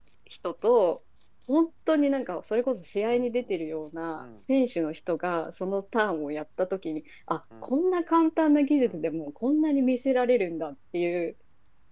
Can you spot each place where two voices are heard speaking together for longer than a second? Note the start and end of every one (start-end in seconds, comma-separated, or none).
none